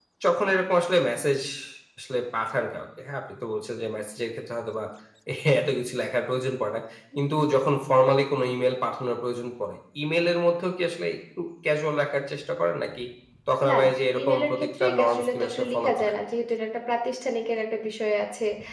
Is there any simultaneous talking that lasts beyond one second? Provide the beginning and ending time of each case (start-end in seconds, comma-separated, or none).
13.7-16.1